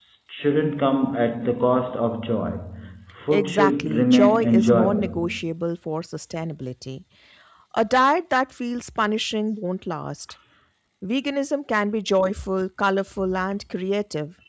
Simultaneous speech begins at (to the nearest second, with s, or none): 3 s